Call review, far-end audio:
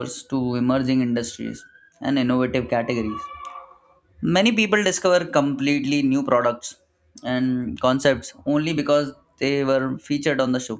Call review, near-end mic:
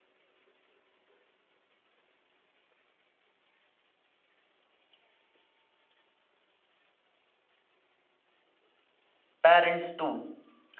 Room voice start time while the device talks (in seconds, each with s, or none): 9.4 s